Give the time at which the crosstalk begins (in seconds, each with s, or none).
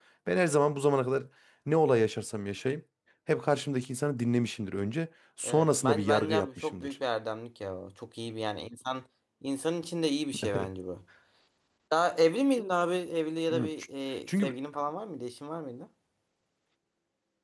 5.4 s